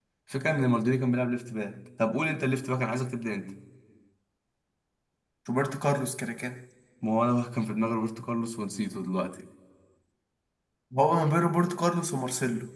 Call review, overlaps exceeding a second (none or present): none